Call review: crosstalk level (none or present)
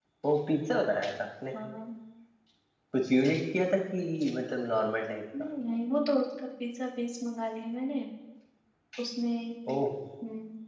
none